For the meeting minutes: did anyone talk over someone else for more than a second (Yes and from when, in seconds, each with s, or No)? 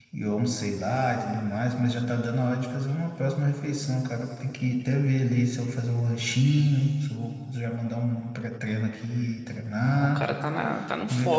No